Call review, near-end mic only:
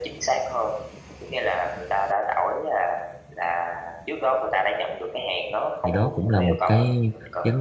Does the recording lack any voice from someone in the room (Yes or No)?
No